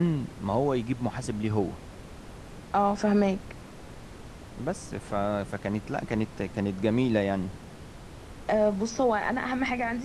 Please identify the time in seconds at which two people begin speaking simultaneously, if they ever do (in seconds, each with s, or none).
none